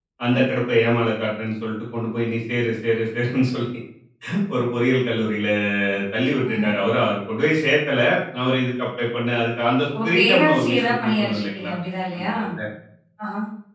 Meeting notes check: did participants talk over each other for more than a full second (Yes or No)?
Yes